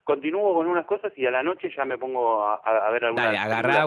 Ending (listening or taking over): taking over